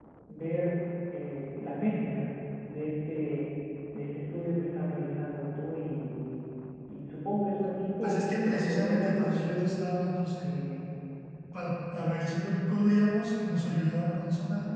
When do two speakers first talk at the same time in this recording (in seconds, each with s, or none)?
8.0 s